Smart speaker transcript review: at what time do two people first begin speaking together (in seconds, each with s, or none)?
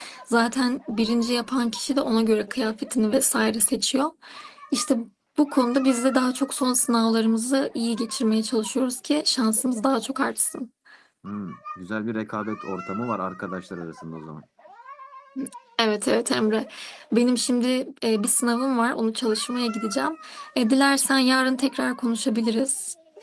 none